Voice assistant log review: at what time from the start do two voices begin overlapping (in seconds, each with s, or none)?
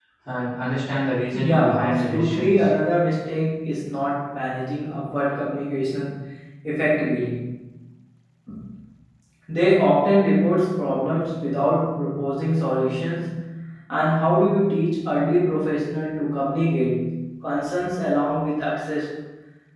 1.3 s